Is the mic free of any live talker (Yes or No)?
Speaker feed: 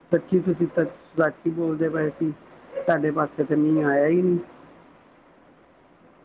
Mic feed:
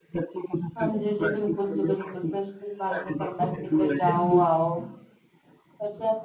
No